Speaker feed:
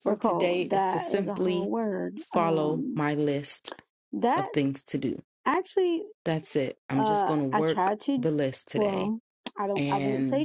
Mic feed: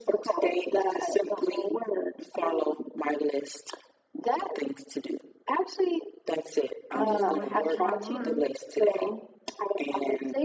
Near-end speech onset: 7 s

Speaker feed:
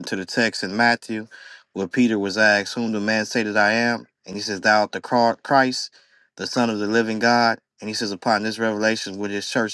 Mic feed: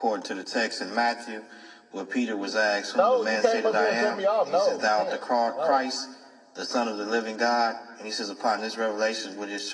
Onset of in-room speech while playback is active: 3 s

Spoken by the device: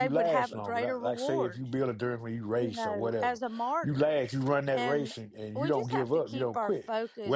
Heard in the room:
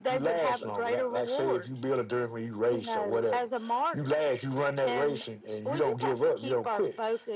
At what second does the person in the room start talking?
none

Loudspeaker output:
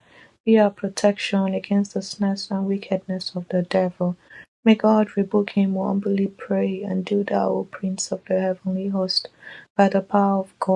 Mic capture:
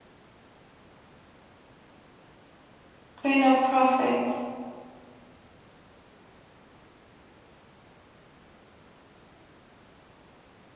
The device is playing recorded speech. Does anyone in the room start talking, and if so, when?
3 s

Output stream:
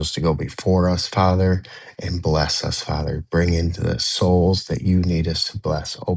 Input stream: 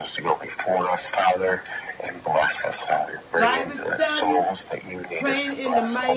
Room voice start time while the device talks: 3 s

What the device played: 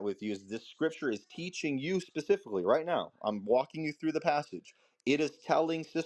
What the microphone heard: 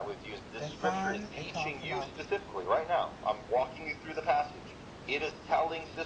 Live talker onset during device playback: 1 s

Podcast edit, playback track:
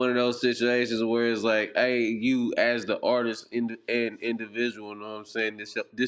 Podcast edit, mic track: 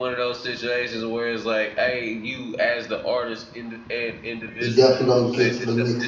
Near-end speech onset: 5 s

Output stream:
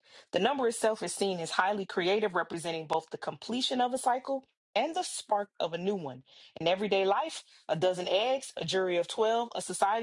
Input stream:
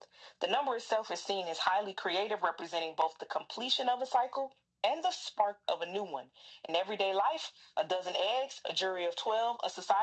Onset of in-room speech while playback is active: none

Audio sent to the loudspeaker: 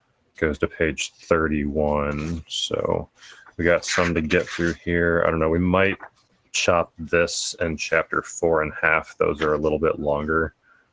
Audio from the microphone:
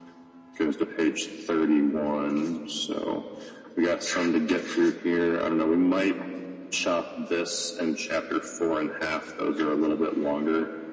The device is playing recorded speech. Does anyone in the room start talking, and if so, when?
none

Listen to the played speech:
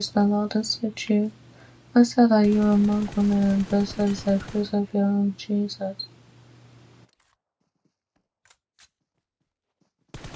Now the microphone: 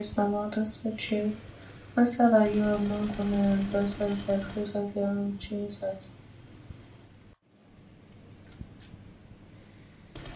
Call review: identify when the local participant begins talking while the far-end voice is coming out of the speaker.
none

